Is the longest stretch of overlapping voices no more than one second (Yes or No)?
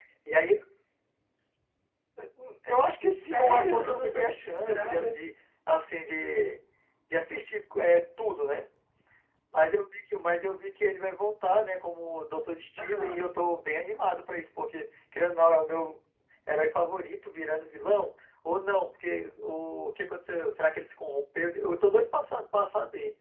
No